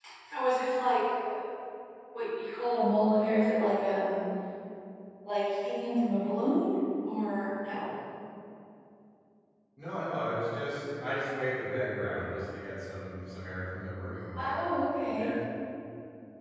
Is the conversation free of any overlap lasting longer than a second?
Yes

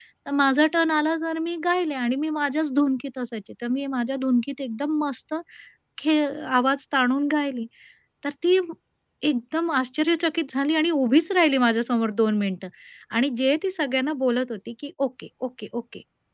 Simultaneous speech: No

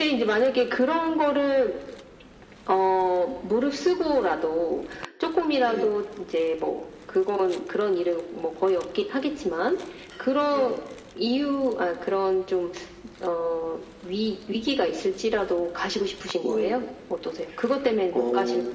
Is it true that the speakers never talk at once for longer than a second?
Yes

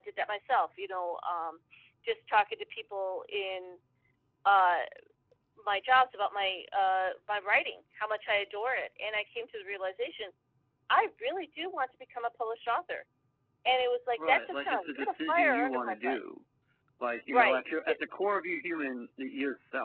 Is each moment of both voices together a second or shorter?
No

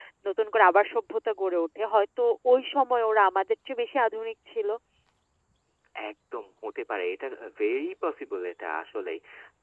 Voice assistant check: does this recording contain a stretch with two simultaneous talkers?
No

